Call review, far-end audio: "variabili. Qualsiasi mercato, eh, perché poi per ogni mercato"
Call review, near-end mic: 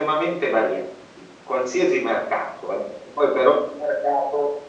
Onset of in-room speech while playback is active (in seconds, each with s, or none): none